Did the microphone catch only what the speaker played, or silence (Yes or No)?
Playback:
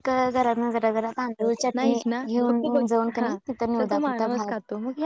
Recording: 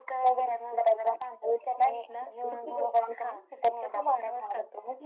Yes